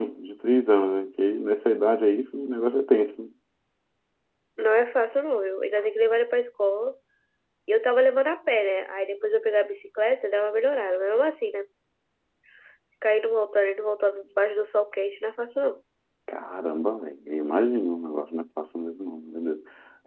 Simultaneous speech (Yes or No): No